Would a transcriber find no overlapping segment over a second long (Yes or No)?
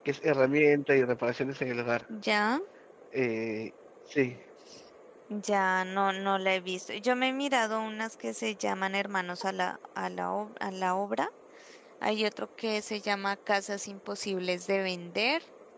Yes